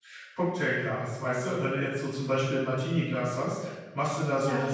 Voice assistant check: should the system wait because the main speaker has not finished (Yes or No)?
Yes